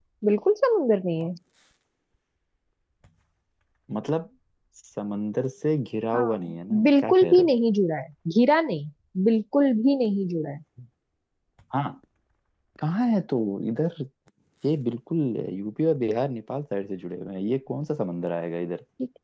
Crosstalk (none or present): present